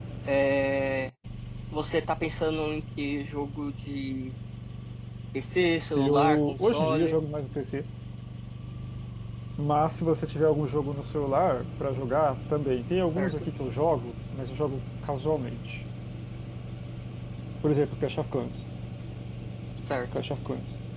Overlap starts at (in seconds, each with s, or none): 6.0 s